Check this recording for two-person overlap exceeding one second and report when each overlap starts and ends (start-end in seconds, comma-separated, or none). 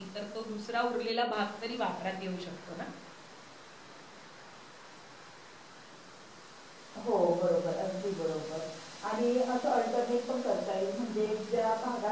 none